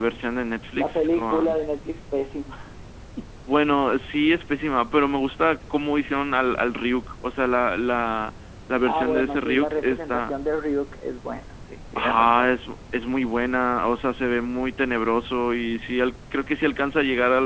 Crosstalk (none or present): present